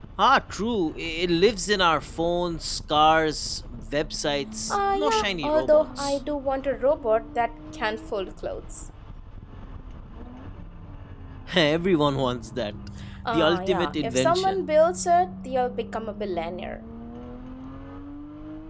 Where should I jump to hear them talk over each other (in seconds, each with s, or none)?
4.7 s